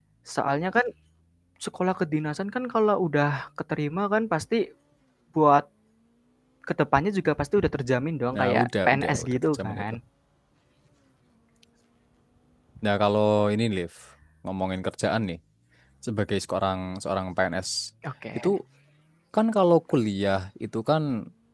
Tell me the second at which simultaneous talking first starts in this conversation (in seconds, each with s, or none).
8.3 s